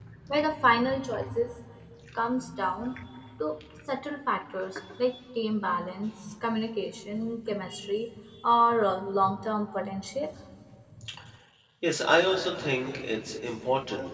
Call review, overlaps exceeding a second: none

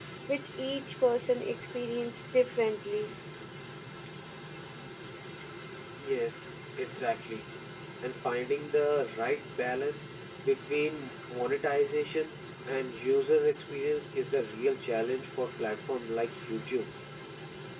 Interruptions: none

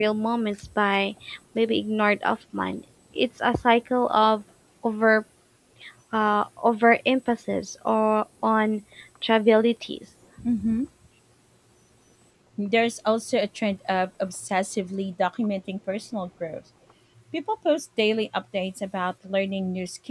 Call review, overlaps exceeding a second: none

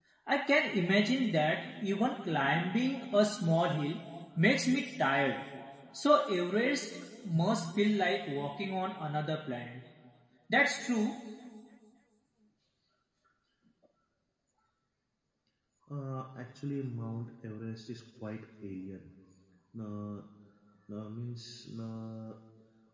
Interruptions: none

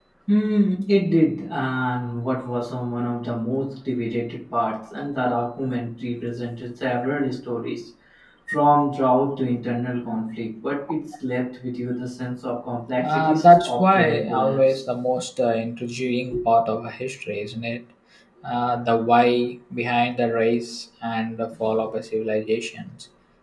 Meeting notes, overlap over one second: present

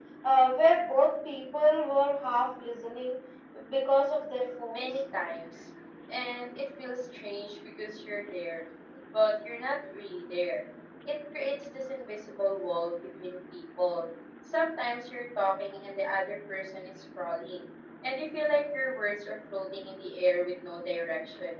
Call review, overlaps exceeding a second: none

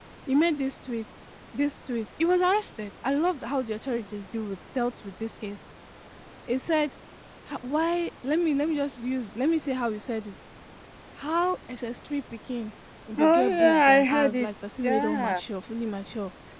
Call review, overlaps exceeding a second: present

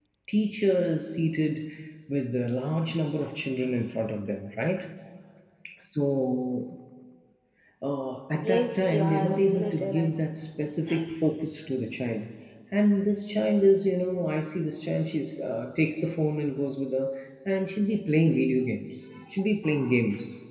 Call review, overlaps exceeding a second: present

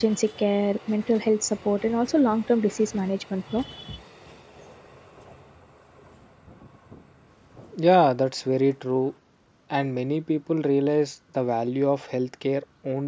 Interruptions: none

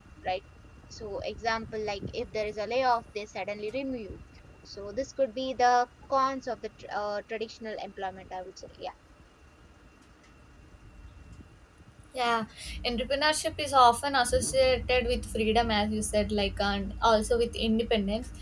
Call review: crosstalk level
none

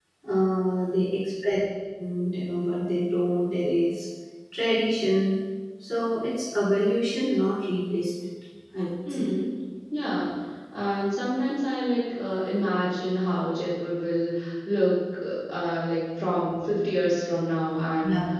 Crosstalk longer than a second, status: none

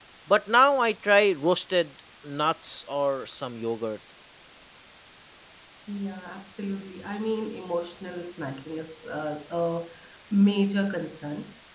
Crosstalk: none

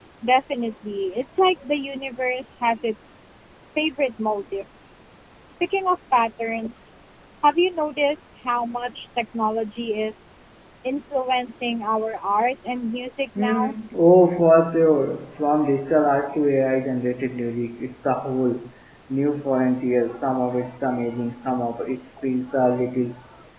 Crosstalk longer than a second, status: none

